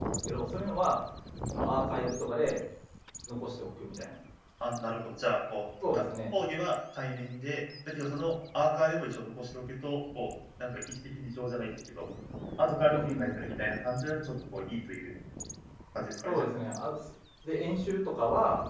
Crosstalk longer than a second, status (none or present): none